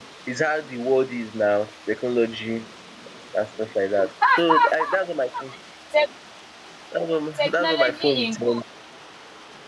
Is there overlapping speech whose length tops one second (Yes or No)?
Yes